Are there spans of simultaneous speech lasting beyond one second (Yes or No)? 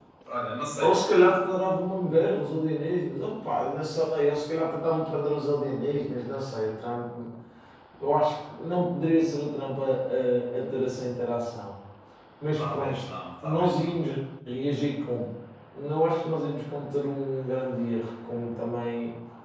No